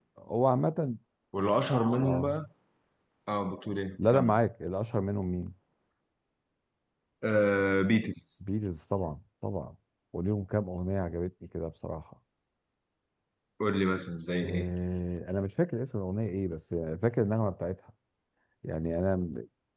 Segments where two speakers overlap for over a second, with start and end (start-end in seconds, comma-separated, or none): none